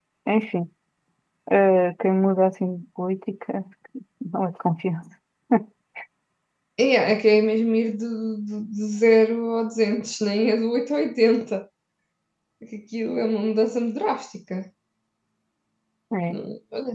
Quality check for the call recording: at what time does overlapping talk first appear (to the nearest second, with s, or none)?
none